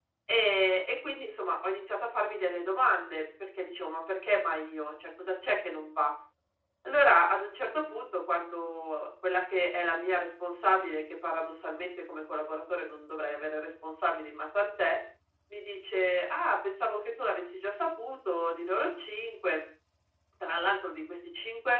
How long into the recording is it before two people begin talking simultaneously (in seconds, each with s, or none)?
none